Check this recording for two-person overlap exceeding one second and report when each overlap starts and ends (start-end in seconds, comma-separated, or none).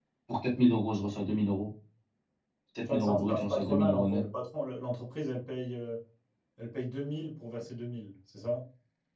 2.9-4.2